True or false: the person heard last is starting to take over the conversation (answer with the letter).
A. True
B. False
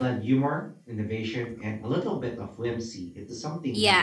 A